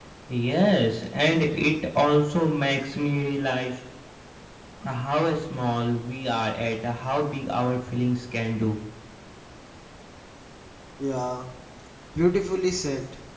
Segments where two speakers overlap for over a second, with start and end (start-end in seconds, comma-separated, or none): none